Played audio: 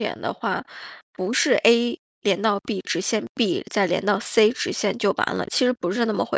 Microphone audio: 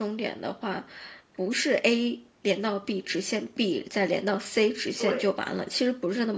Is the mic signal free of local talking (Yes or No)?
No